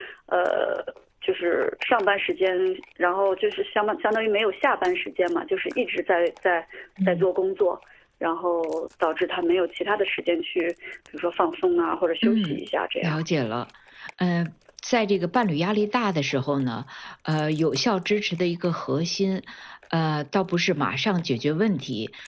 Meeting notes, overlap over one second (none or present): none